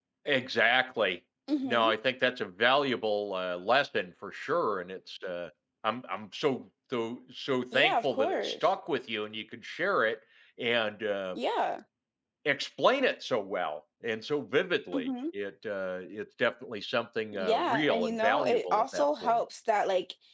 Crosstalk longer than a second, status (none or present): present